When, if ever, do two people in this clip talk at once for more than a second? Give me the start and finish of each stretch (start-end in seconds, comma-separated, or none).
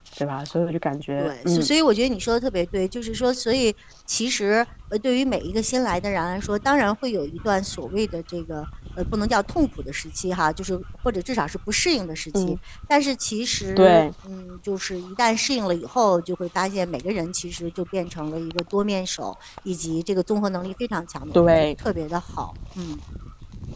none